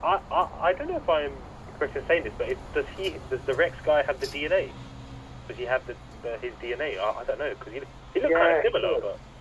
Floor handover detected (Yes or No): Yes